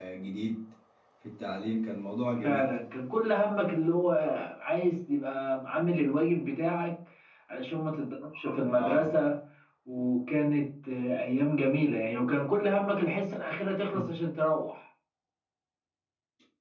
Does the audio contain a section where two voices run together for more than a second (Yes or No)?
No